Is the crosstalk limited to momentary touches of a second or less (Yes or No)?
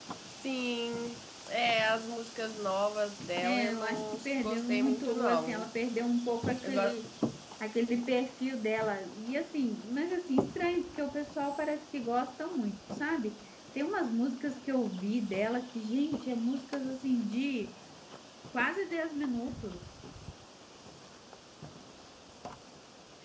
No